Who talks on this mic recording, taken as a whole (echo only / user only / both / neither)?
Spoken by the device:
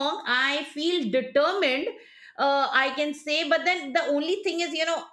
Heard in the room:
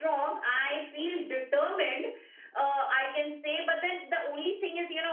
echo only